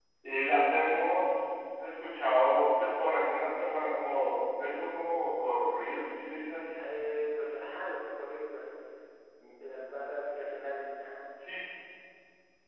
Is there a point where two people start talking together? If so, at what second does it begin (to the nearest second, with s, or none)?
none